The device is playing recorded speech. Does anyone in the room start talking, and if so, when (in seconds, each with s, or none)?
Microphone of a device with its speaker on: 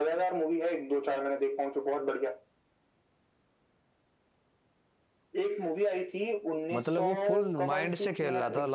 6.7 s